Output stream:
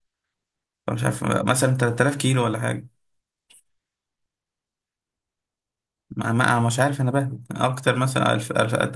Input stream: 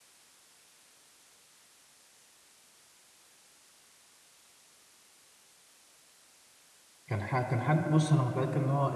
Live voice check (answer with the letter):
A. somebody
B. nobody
A